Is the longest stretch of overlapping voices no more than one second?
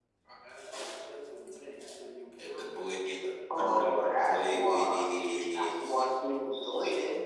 No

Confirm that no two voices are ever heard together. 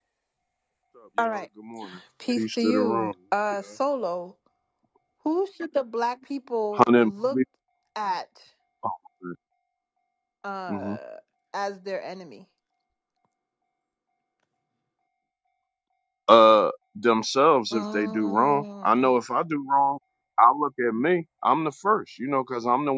No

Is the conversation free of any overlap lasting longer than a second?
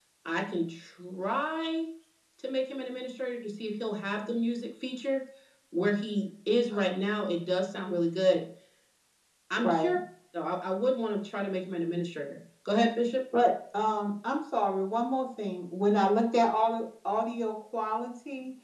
Yes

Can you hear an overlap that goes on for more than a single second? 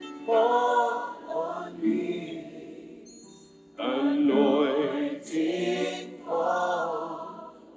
No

